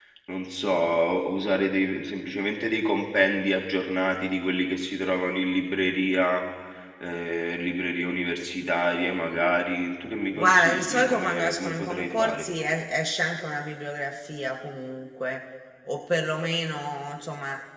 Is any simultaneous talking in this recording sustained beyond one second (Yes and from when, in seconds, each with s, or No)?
Yes, from 10.3 s